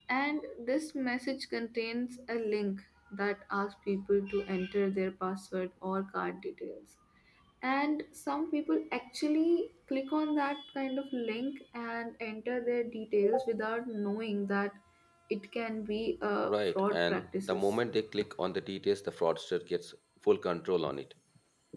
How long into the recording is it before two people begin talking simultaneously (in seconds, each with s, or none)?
16.4 s